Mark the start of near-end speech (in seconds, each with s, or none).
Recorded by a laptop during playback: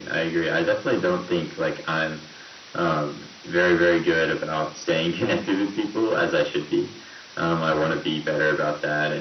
none